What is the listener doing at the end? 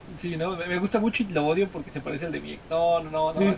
taking over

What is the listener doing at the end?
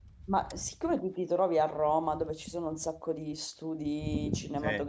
listening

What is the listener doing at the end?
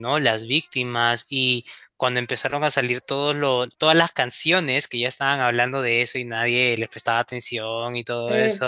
taking over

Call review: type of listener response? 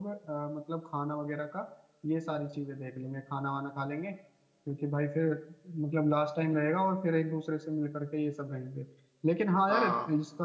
listening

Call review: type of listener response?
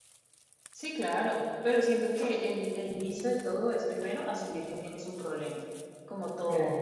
listening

